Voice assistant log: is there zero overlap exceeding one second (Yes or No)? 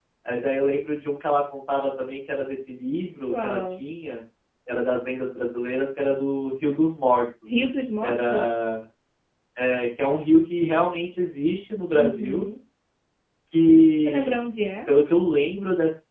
Yes